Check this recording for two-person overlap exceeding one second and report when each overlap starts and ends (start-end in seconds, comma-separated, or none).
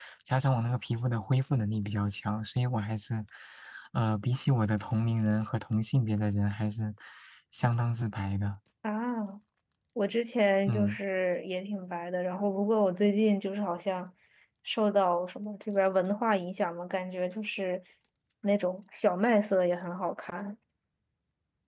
none